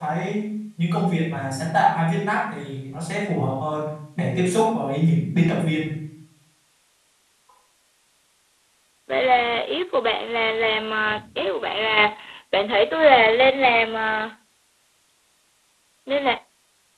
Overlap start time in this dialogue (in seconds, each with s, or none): none